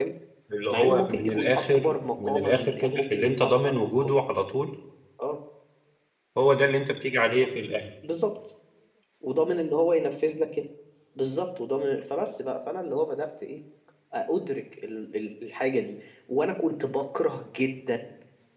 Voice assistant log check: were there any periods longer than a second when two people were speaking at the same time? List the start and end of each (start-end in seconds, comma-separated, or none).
0.7-4.2